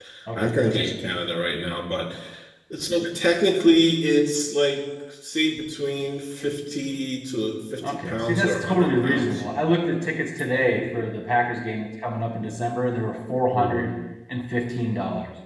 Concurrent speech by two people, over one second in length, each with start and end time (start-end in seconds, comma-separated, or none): 7.9-9.4